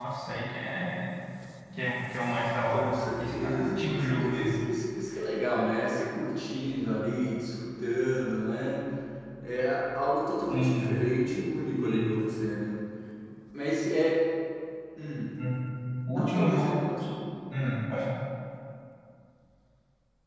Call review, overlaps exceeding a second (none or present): present